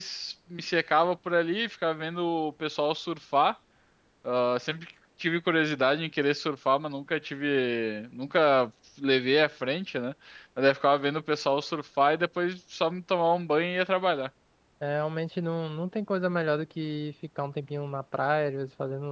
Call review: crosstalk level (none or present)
none